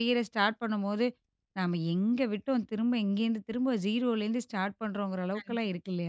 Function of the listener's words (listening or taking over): taking over